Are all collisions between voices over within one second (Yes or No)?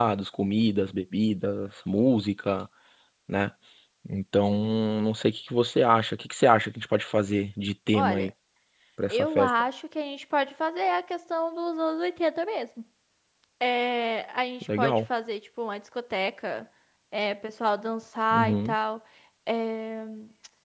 Yes